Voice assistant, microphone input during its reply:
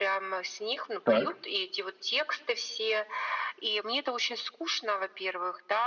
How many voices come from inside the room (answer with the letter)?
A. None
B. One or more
B